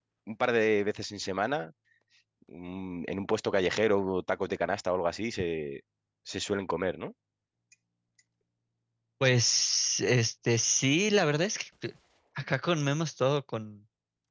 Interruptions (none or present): none